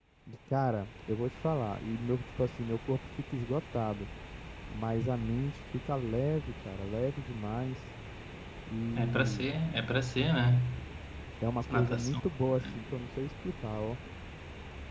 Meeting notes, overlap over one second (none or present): none